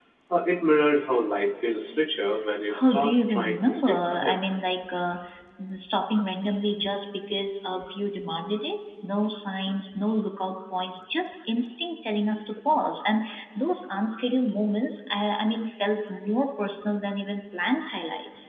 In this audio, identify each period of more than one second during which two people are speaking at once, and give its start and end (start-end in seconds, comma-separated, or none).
2.8-4.4